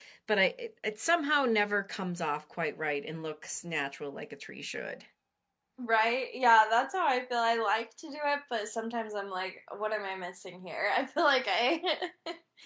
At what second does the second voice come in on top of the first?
none

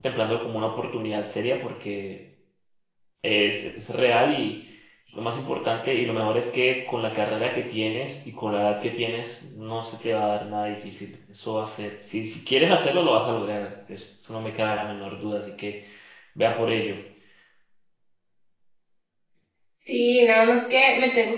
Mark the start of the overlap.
none

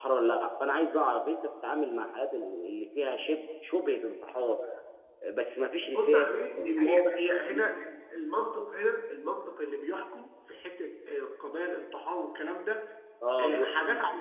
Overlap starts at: 5.9 s

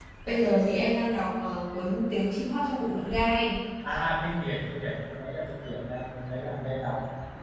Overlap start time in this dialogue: none

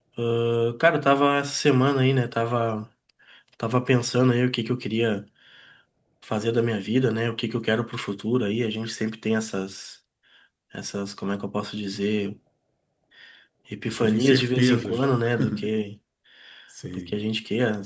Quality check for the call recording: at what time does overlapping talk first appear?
13.9 s

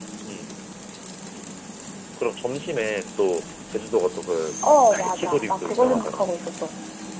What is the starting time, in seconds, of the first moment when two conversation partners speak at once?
4.6 s

